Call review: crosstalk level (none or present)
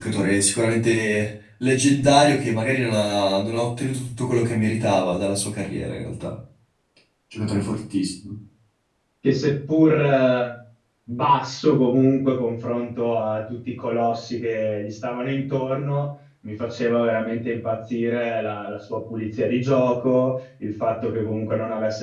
none